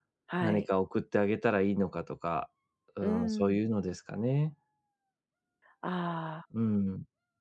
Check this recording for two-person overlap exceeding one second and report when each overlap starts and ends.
none

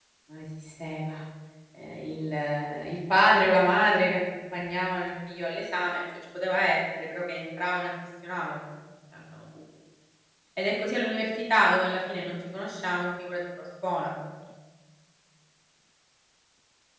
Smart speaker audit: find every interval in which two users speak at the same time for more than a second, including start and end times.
none

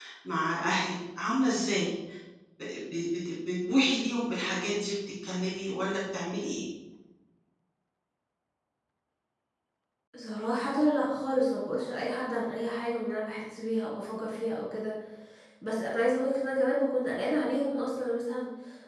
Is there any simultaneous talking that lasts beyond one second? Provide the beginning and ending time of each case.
none

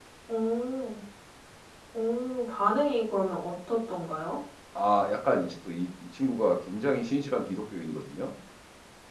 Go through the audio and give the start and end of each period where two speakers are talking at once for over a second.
none

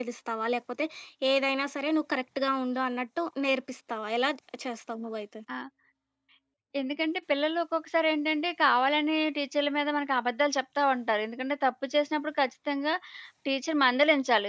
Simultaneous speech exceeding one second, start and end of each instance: none

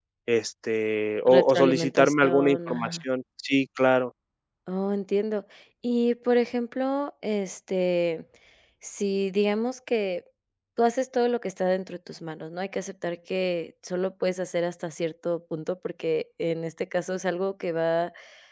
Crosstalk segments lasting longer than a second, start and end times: 1.4-3.0

